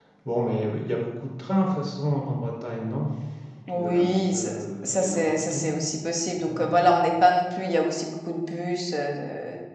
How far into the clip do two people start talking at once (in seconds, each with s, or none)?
3.7 s